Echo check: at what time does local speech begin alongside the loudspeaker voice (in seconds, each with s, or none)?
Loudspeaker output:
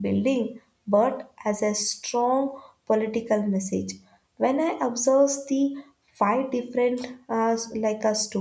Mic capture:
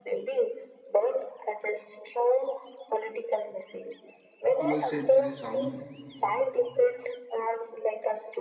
4.6 s